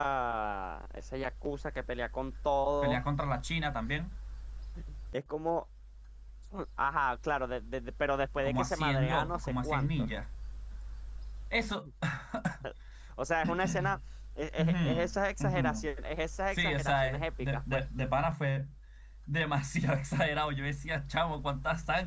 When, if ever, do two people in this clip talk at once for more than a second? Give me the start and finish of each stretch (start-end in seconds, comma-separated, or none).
8.4-9.9, 16.5-17.8